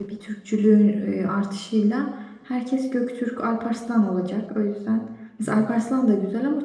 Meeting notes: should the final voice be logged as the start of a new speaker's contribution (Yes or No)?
No